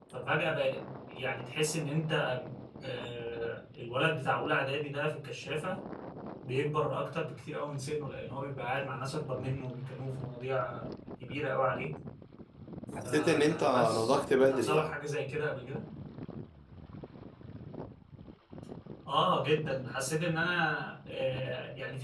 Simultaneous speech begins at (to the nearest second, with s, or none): 13 s